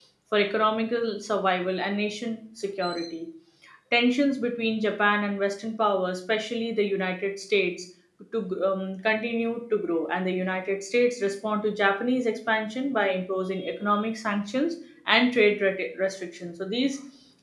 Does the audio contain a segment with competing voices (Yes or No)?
No